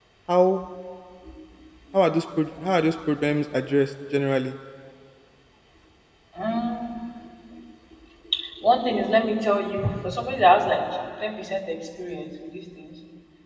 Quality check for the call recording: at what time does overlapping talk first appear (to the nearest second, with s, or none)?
none